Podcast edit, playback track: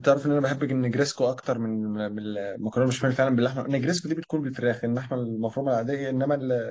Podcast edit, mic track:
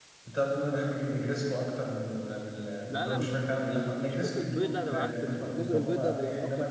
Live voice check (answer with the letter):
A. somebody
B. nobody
A